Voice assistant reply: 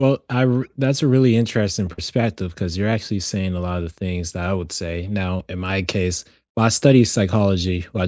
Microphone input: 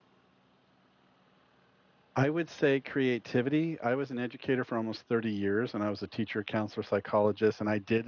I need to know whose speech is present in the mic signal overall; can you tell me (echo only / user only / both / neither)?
user only